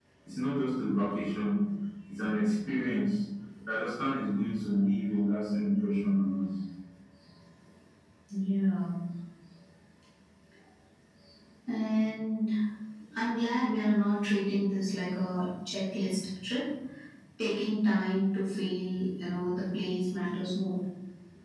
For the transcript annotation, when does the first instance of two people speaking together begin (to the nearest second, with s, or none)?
none